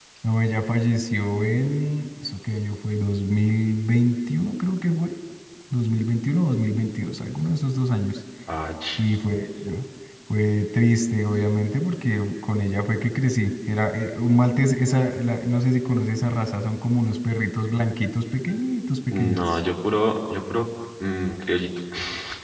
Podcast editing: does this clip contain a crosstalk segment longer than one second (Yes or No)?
No